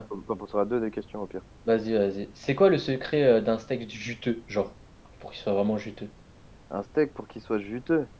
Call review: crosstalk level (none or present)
none